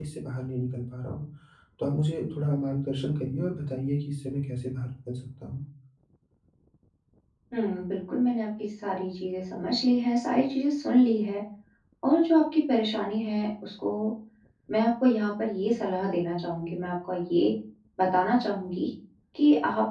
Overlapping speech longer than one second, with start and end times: none

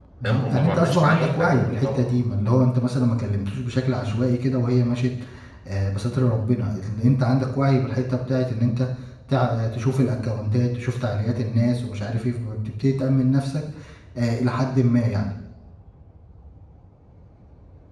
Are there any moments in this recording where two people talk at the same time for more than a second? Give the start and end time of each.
0.5-2.0

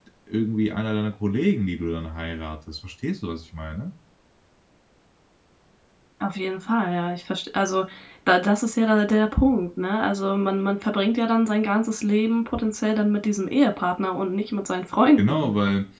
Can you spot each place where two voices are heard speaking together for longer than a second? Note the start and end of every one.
none

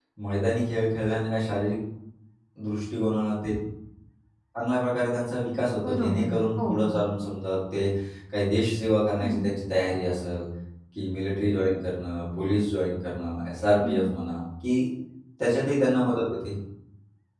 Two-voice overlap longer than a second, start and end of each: 5.8-7.0

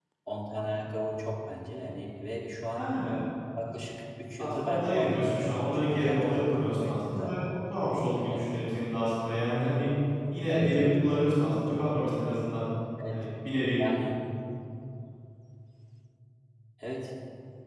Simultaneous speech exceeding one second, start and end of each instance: 4.4-7.4

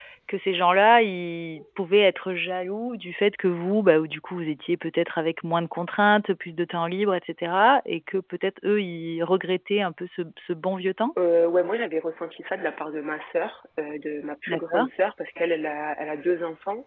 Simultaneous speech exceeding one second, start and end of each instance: none

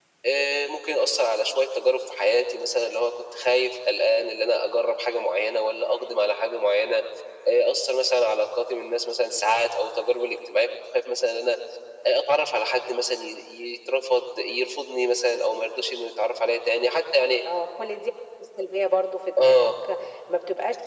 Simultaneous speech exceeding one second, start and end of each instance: none

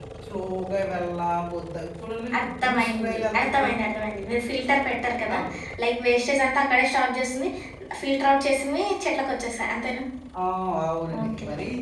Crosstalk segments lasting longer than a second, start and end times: 2.4-3.7

